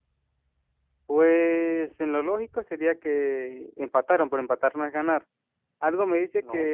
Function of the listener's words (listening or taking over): listening